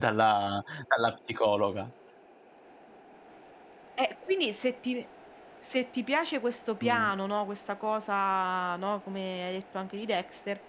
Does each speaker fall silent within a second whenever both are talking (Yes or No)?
Yes